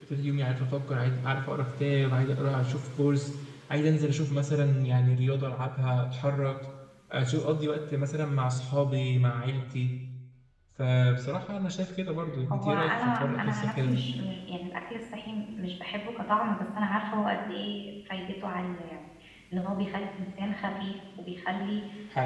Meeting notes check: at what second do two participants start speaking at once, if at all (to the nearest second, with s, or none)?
13 s